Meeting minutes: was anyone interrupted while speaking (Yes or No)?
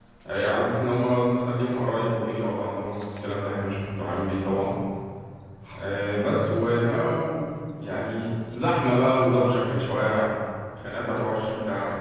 No